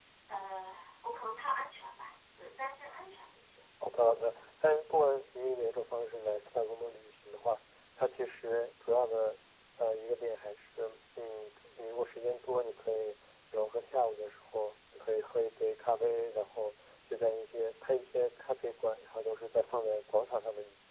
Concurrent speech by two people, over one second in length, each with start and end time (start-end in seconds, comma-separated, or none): none